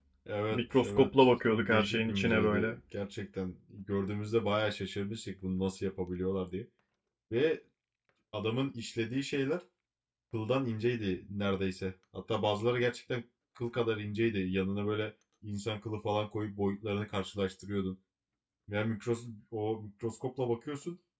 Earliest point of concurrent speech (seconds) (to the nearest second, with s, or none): 1 s